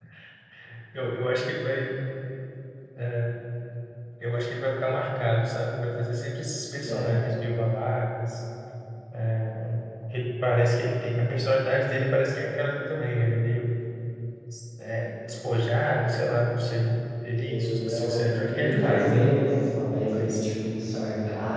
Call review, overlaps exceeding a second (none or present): present